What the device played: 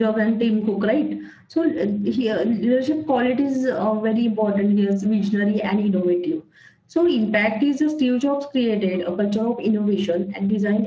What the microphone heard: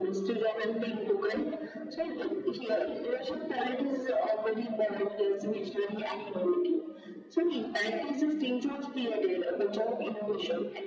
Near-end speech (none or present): none